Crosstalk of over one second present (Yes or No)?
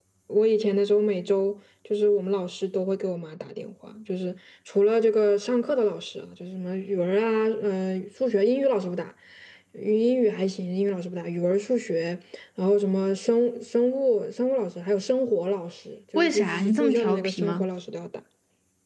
Yes